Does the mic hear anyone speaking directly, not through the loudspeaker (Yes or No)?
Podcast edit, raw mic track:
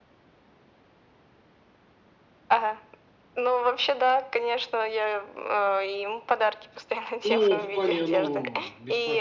Yes